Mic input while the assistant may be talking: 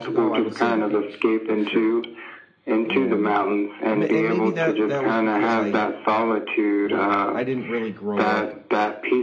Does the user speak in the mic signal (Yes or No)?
Yes